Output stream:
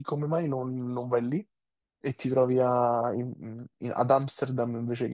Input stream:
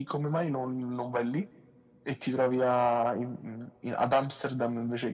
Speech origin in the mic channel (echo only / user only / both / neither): echo only